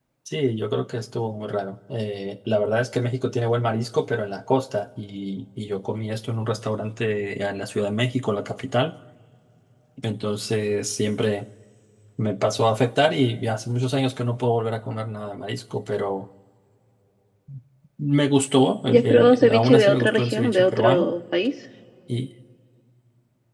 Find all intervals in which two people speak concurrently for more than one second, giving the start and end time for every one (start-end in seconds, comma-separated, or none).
18.9-21.1